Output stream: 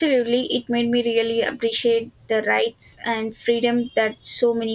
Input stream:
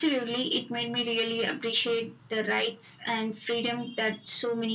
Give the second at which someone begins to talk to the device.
none

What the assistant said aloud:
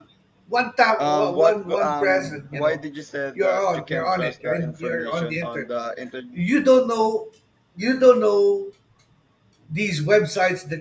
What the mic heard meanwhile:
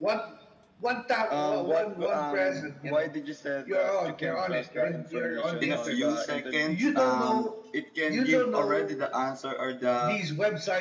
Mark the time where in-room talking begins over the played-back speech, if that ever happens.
5.6 s

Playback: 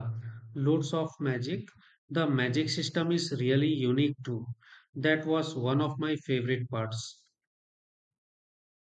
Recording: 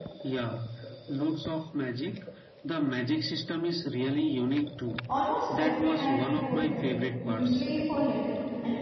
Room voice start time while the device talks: 5.1 s

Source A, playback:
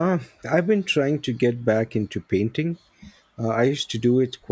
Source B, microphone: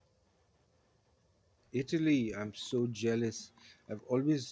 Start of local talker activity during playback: 1.7 s

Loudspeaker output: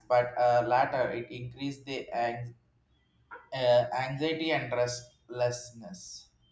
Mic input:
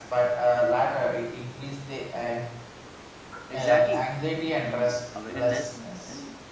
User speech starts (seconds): 3.5 s

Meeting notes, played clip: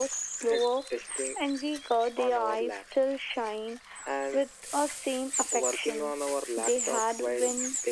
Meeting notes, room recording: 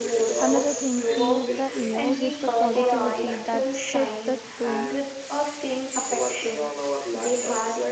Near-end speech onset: 0.4 s

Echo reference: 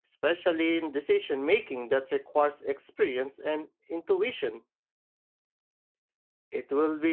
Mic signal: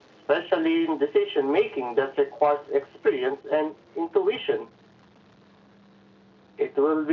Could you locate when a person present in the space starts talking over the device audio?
none

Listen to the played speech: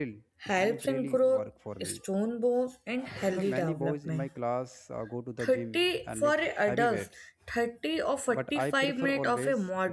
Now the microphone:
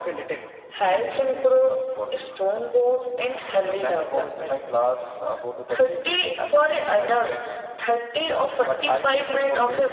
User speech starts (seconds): none

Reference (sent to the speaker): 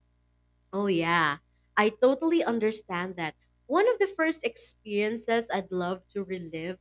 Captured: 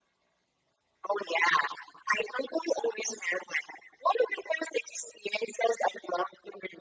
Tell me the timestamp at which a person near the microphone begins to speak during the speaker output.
none

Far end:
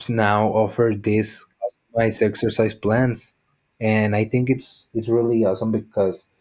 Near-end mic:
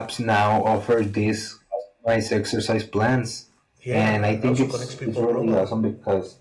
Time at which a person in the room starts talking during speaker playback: 3.8 s

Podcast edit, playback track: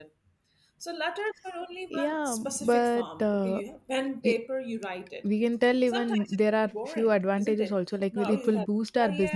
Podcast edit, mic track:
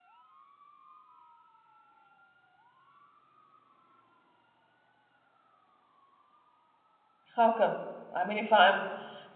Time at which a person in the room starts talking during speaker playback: 7.4 s

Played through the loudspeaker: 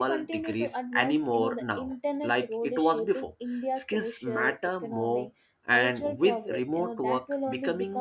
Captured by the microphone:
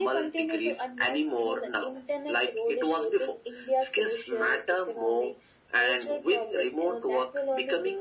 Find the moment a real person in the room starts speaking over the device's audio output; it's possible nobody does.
none

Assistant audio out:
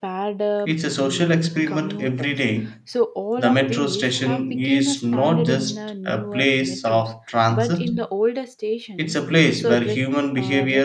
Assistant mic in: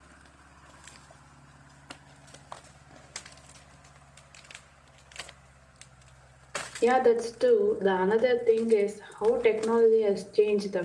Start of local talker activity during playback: 6.8 s

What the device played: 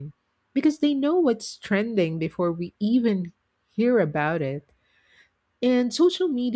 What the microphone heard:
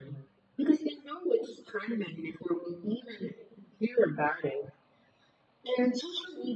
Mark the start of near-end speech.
none

